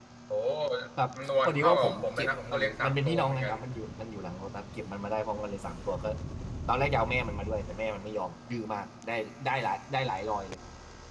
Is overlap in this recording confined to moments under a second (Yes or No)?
No